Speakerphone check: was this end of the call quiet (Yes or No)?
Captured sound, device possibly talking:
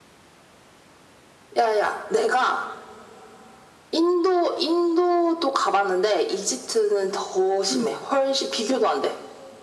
No